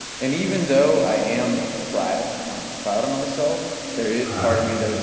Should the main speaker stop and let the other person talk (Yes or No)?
No